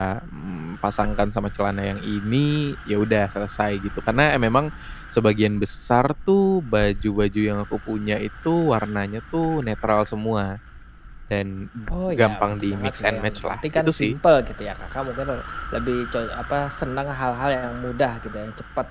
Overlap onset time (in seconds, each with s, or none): 12.2 s